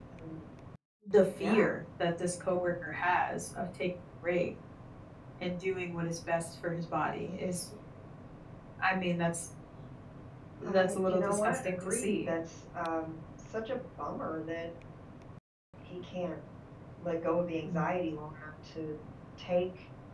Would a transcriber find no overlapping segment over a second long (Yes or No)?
No